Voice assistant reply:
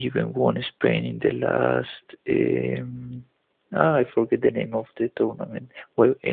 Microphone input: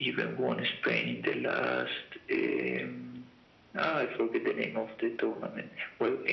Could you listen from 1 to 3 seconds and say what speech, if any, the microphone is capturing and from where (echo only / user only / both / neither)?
echo only